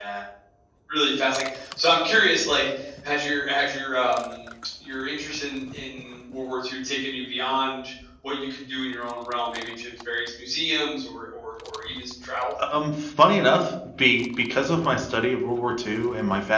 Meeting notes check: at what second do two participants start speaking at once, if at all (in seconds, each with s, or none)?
none